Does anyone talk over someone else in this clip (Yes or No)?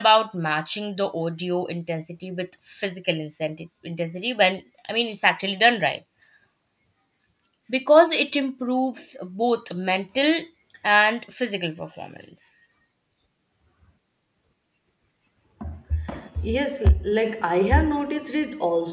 No